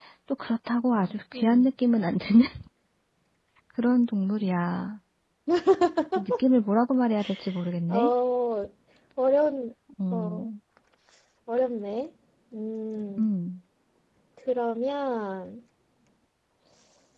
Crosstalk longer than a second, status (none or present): none